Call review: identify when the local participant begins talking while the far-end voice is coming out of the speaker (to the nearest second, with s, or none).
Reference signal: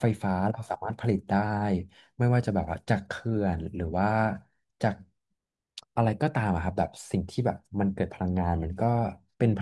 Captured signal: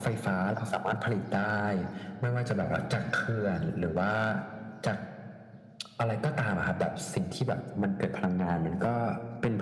none